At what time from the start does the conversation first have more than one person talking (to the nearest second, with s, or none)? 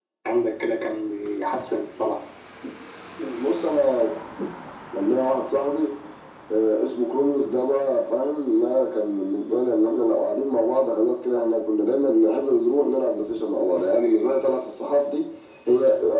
none